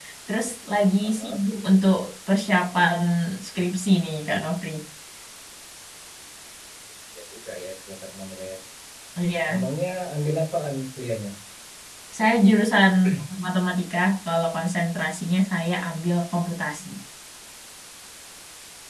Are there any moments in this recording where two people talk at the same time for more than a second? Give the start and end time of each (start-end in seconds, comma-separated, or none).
none